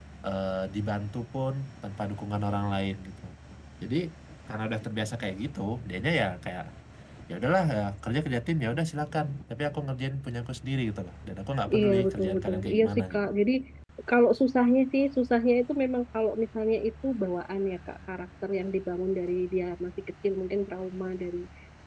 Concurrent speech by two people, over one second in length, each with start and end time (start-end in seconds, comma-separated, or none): 11.8-13.3